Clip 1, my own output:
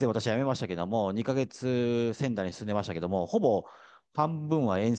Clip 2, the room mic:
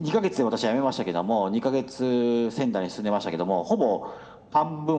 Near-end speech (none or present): none